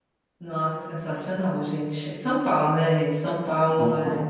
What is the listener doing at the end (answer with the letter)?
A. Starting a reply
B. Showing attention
B